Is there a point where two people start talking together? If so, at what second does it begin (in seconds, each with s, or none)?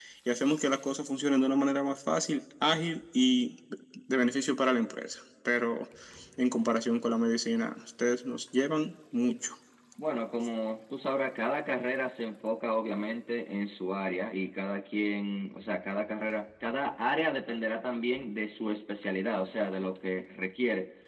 none